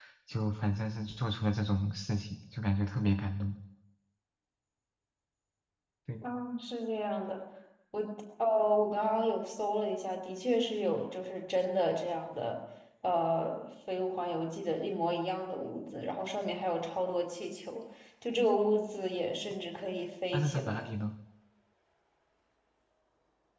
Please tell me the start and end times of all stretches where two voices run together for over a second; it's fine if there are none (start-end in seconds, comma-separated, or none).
none